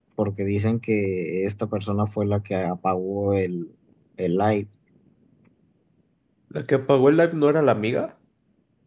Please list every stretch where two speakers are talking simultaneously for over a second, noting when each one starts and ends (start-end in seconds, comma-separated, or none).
none